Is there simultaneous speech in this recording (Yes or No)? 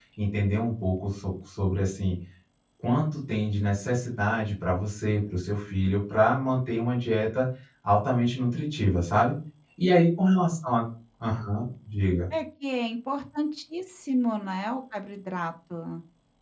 No